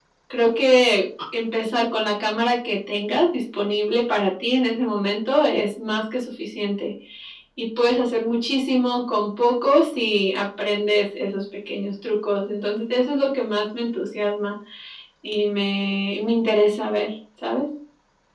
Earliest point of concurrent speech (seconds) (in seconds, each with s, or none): none